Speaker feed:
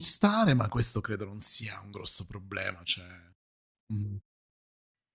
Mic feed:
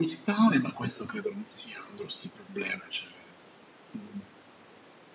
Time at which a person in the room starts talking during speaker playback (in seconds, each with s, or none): none